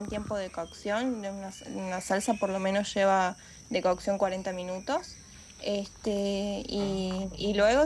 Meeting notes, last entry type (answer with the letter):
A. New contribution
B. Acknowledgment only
B